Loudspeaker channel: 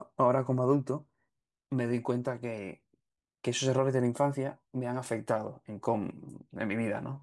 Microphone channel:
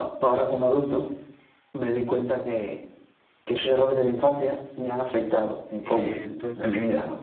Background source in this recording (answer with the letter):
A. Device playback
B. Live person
B